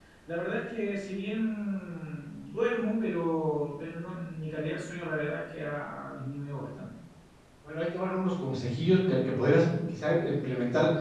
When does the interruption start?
none

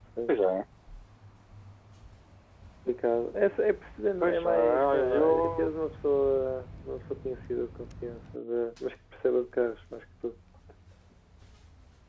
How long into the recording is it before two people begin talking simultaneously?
4 s

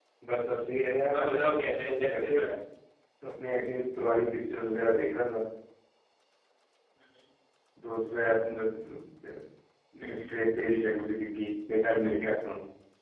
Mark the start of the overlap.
1 s

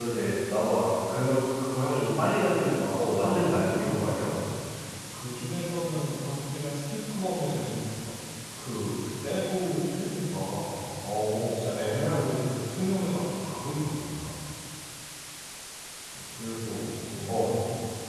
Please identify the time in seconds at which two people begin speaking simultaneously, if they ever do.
3 s

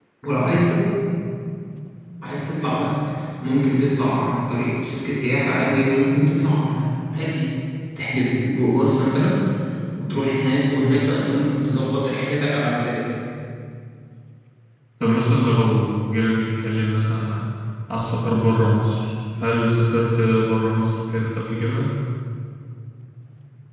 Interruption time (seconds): none

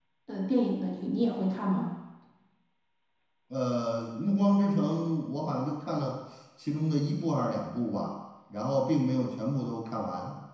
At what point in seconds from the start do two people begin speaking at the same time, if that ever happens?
none

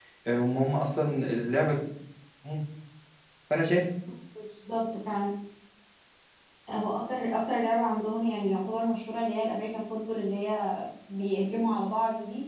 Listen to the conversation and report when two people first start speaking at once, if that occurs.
none

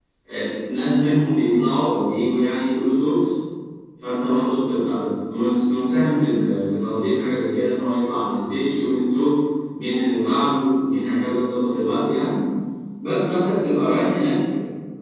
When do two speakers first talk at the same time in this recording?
none

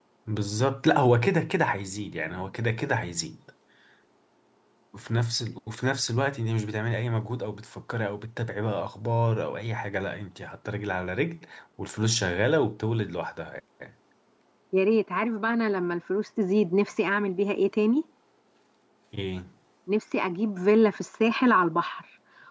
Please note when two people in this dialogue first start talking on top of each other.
none

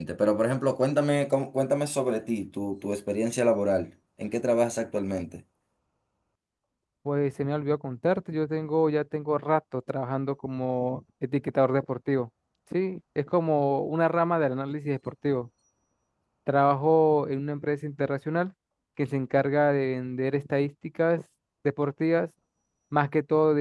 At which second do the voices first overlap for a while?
none

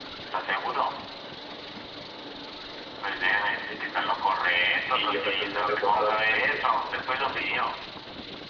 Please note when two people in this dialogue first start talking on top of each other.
5 s

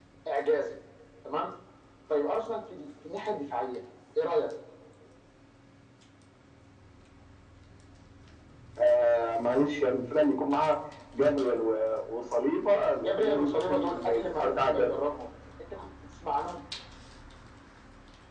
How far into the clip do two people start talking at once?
13 s

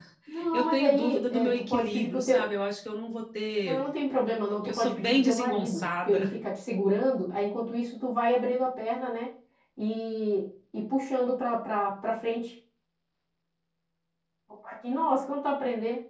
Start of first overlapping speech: 1 s

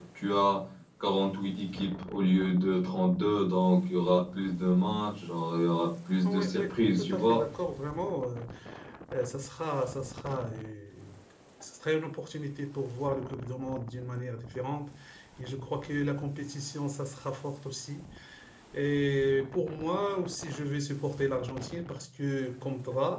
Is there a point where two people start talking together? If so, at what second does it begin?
6 s

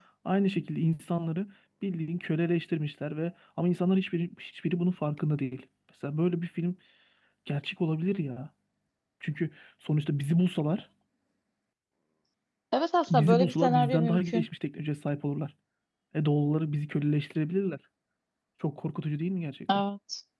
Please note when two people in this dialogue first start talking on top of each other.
13 s

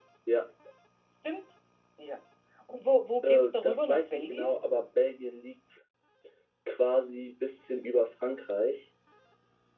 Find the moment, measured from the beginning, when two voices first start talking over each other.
3 s

